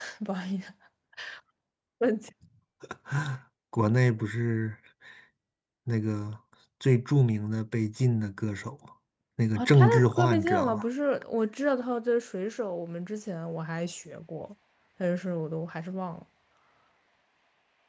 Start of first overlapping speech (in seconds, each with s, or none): 9.6 s